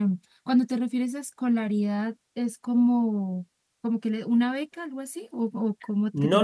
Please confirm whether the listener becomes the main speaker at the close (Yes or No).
Yes